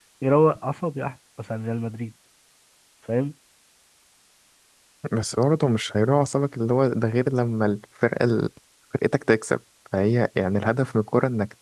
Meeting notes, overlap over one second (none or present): none